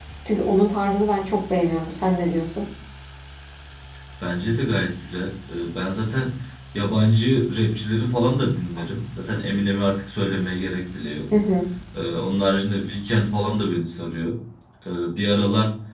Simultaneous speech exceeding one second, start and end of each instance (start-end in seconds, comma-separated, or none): none